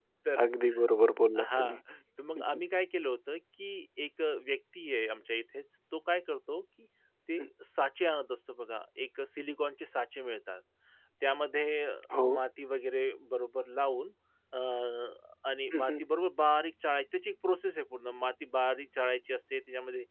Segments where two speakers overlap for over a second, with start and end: none

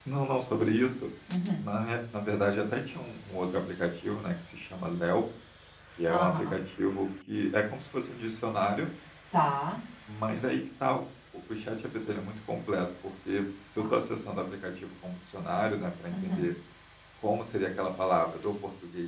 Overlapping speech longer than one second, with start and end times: none

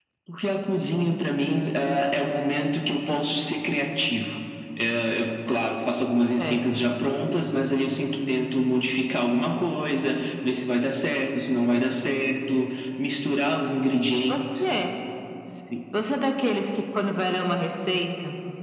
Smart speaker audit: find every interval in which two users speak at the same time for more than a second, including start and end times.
none

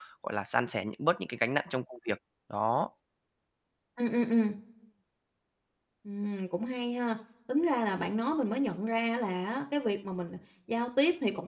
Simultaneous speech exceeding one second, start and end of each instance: none

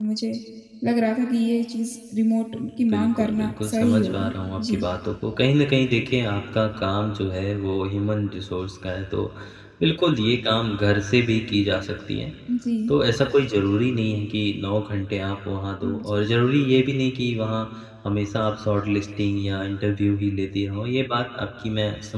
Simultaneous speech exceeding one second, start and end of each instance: 2.9-4.8

